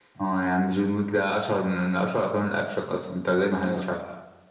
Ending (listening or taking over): taking over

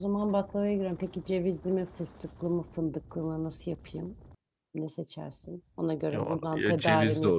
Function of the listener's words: taking over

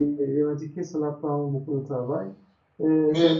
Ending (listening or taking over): listening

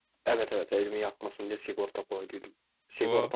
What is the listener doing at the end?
listening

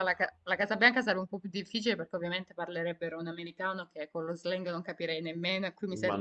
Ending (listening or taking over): taking over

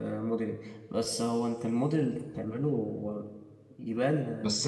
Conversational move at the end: taking over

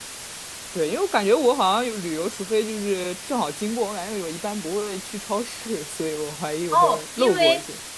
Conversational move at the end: taking over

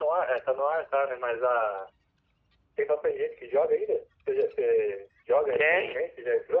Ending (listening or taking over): taking over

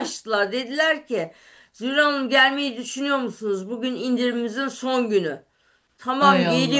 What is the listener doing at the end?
listening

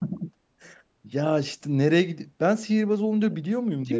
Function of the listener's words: taking over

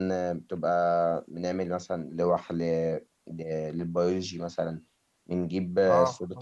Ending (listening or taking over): listening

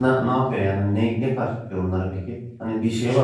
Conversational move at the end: taking over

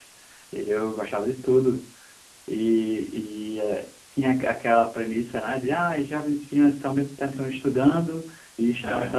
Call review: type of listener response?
listening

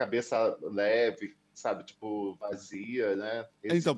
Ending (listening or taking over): taking over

